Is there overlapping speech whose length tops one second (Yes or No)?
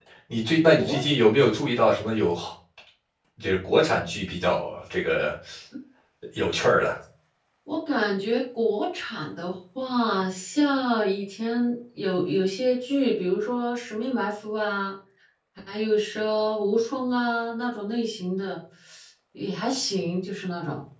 No